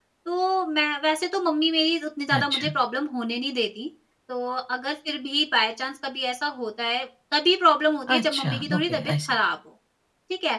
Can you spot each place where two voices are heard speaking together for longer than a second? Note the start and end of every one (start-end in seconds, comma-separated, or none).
8.1-9.3